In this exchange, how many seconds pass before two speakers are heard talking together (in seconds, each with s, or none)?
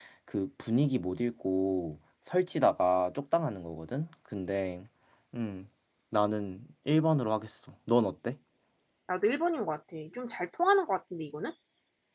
none